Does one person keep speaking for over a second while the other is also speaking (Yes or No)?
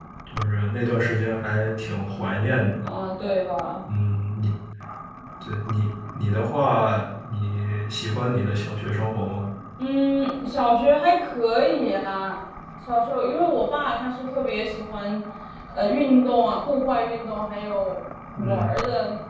No